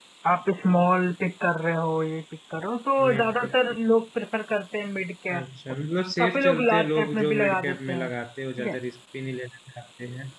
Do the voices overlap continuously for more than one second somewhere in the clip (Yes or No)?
Yes